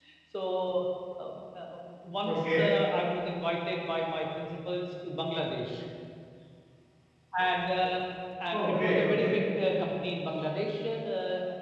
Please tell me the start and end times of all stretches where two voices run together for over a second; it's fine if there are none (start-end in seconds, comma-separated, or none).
8.5-9.8